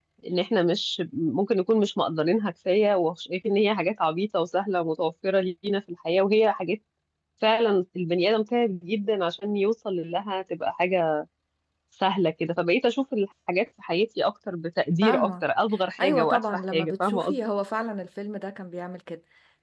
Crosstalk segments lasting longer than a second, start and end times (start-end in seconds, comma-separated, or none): 16.0-17.4